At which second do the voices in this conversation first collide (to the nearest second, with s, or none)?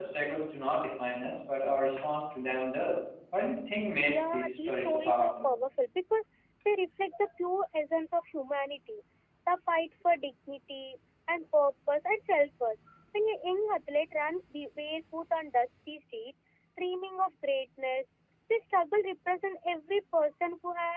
4 s